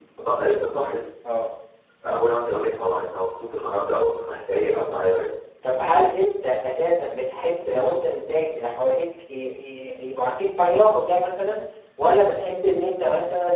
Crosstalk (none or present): none